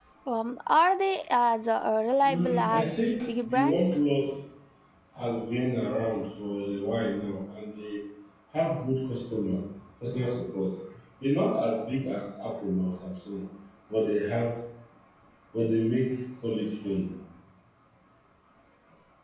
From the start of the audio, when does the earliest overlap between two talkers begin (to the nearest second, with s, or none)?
2 s